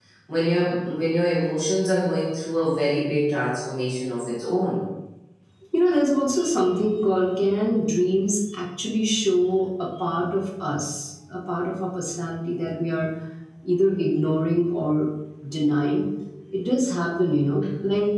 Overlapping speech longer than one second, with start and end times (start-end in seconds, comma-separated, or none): none